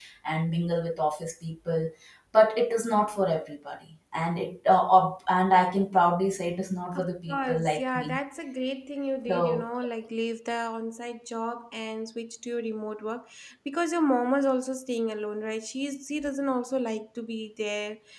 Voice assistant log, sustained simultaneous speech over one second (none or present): present